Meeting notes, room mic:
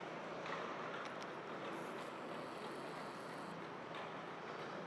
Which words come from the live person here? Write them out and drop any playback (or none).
none